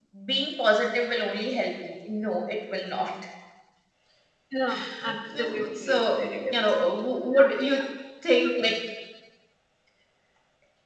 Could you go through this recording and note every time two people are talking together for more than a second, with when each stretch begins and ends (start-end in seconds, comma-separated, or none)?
5.4-6.9